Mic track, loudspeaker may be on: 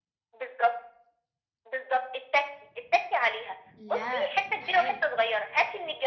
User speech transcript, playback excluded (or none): لأ استحالة.